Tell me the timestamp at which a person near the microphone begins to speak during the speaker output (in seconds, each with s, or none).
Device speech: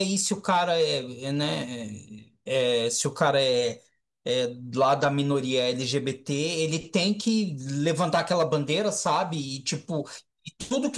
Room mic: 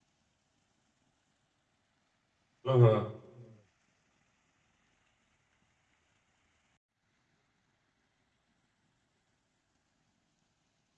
2.6 s